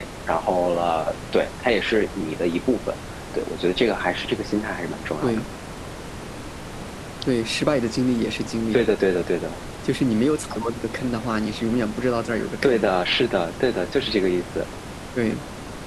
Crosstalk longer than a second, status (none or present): none